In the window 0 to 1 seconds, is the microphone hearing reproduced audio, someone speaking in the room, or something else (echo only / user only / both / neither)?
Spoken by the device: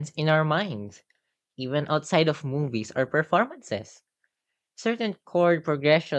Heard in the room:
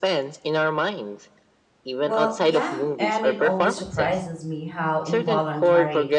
echo only